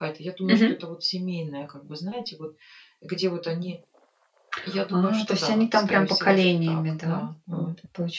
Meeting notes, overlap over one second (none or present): present